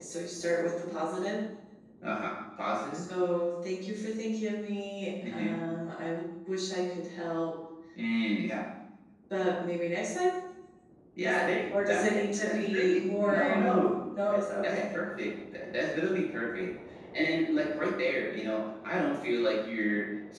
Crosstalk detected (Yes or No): Yes